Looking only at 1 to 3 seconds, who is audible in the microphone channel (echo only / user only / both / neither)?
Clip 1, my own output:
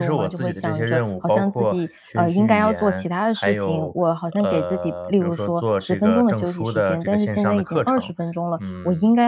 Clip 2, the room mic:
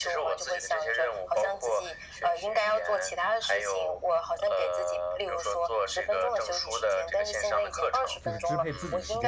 echo only